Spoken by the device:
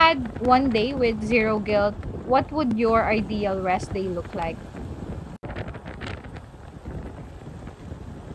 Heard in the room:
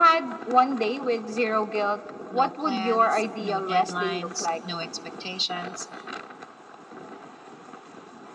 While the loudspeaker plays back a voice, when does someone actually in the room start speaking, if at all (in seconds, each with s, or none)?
2.3 s